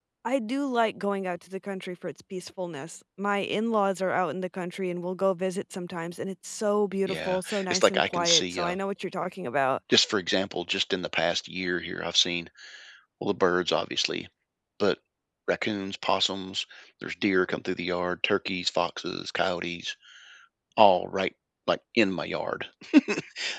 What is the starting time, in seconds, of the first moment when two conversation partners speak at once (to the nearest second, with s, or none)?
7 s